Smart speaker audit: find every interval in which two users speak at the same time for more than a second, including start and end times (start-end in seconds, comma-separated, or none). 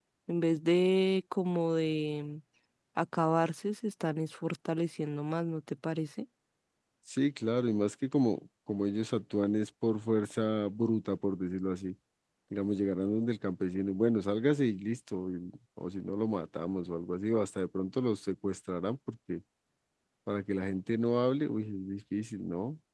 none